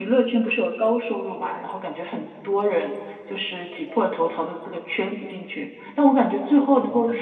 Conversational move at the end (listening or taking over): listening